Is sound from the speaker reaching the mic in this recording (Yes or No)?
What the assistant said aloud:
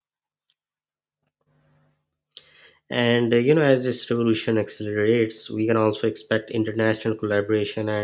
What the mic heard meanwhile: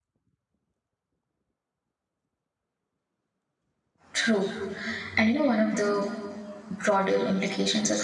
No